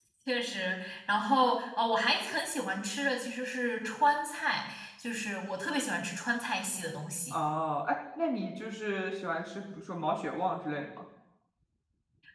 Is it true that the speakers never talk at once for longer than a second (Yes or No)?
Yes